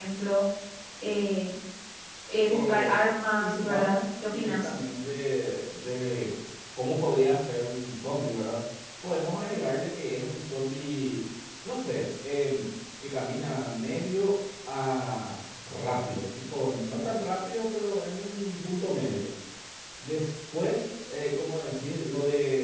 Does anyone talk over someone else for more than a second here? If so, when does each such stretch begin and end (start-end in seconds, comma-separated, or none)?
3.4-4.7